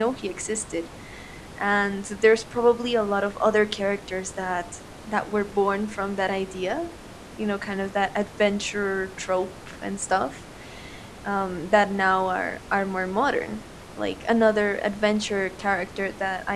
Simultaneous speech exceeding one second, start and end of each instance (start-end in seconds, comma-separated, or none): none